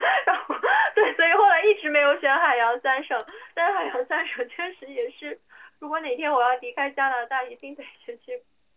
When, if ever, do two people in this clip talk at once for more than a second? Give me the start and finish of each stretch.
none

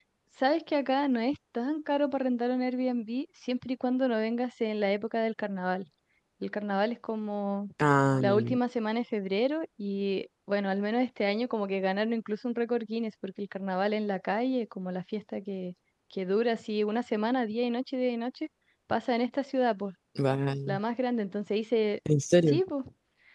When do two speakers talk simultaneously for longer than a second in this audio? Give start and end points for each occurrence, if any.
none

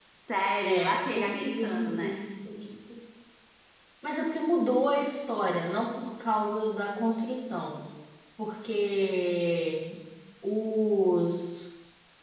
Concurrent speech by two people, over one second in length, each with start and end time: 0.6-2.2

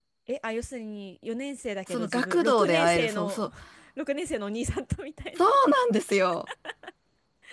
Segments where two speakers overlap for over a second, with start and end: 1.9-3.4

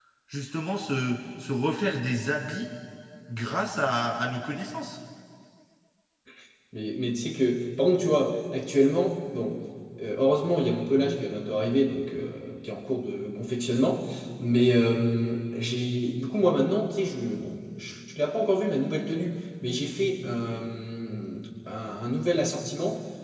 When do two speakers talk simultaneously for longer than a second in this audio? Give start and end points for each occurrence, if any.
none

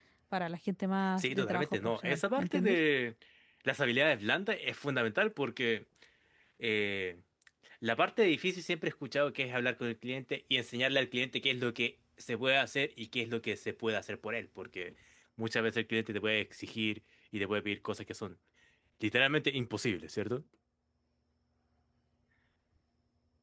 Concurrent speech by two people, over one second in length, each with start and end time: 1.2-2.8

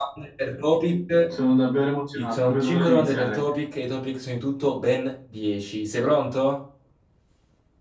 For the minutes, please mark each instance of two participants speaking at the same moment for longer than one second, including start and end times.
2.1-3.4

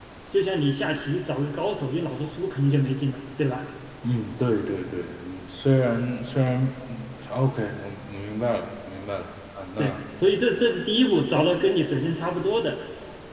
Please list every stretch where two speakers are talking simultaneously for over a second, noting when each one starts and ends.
none

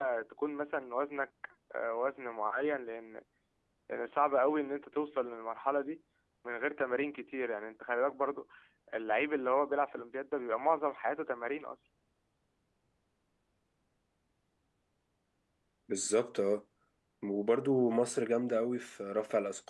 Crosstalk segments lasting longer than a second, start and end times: none

